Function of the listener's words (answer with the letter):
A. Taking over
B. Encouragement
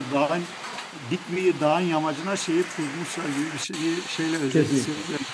A